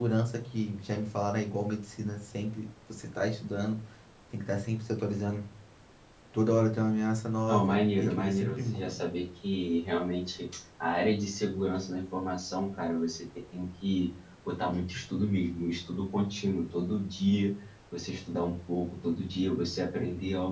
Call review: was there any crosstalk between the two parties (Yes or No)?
Yes